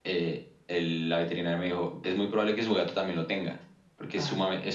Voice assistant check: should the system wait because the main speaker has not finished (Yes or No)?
Yes